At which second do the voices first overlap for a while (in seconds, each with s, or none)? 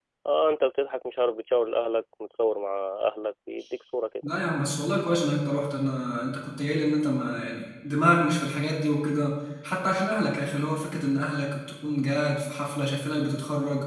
none